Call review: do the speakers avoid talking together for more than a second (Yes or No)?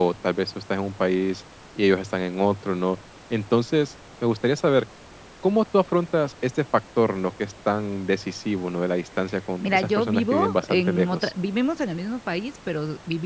No